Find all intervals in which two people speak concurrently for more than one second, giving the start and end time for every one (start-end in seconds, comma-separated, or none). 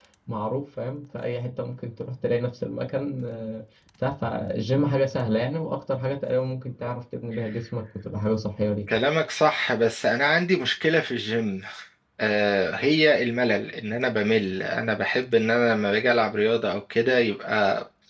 none